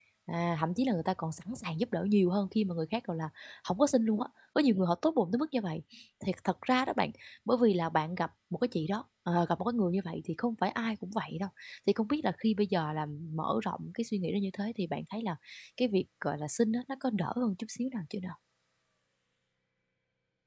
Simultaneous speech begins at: none

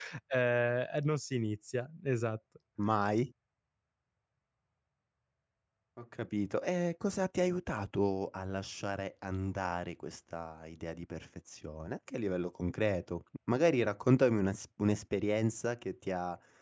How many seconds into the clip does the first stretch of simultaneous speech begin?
none

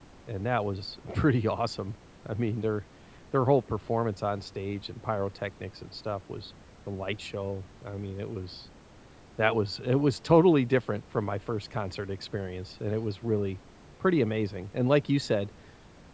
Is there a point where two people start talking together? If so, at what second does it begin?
none

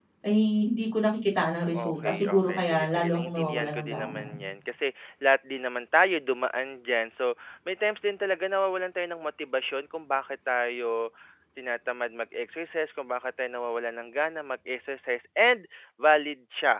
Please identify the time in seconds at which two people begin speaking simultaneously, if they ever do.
1.7 s

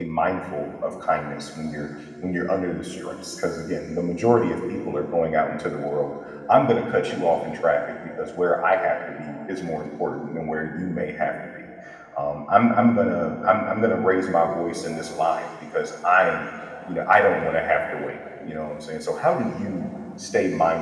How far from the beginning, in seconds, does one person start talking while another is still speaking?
none

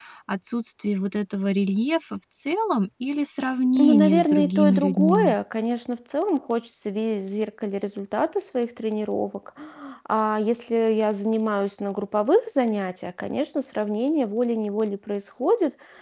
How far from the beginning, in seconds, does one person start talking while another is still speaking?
3.8 s

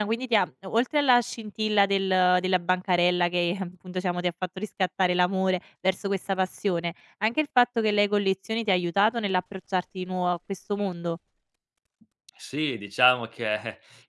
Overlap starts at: none

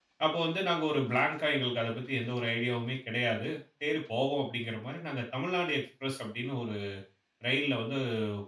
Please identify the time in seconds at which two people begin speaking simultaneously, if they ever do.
none

